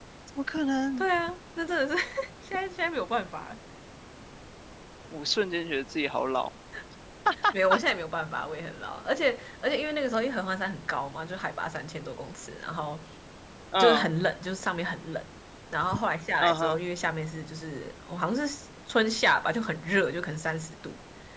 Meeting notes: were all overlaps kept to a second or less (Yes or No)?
Yes